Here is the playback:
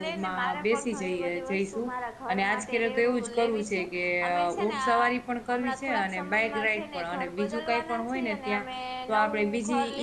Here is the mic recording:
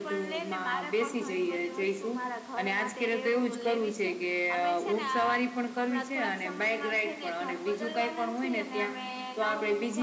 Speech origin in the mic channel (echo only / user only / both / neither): echo only